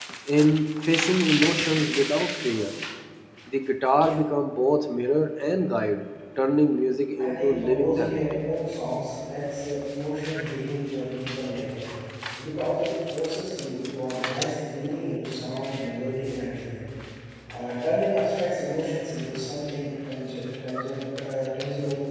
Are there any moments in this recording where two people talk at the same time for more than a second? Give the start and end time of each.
7.2-8.4

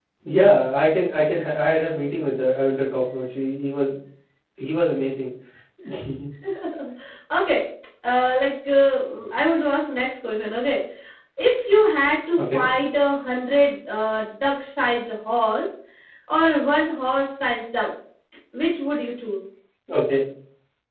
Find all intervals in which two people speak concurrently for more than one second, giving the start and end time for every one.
none

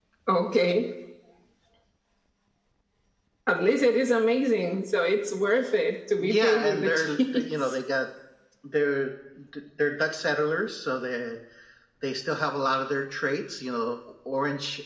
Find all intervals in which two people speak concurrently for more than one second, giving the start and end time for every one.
6.2-7.8

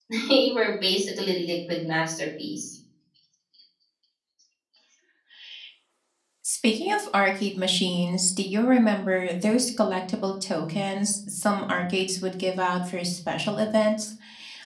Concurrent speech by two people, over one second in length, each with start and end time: none

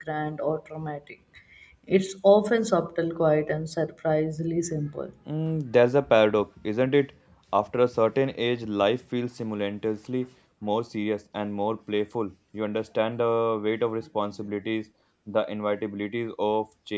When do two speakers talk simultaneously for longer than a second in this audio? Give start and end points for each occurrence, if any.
none

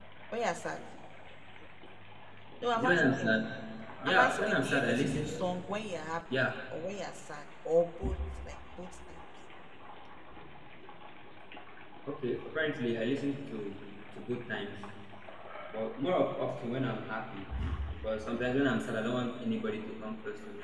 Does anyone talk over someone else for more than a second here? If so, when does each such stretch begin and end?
4.1-5.4

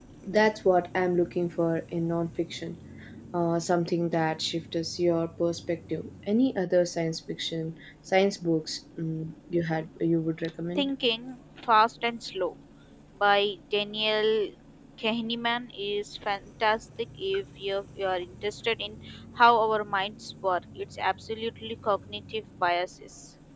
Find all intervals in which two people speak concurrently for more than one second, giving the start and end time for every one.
none

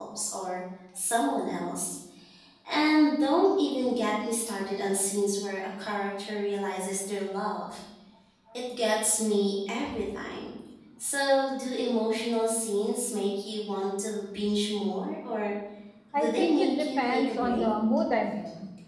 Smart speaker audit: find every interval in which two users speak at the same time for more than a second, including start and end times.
16.1-17.6

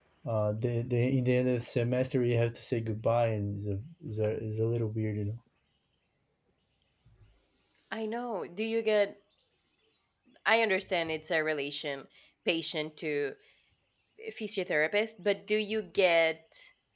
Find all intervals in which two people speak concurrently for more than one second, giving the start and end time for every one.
none

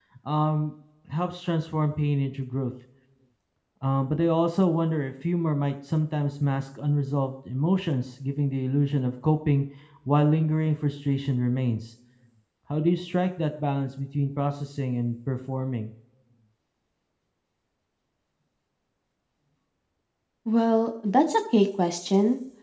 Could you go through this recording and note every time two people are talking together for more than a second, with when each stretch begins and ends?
none

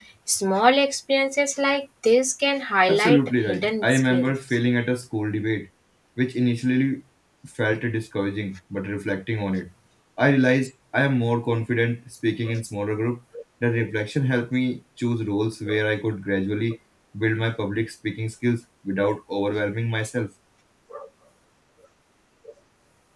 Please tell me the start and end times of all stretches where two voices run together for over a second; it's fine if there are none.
2.9-4.3

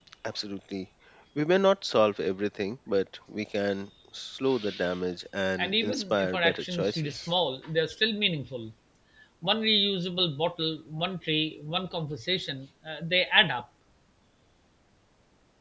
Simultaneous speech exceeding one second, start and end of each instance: 5.6-7.3

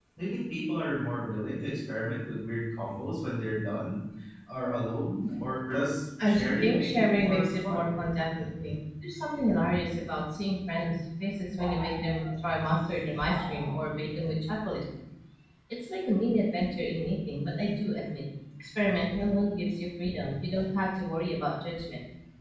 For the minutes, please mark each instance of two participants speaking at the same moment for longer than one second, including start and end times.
6.2-8.0

